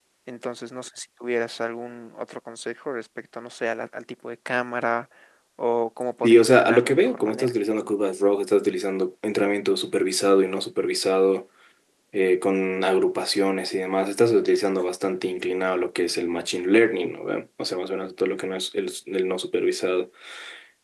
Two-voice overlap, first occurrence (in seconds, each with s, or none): 6.2 s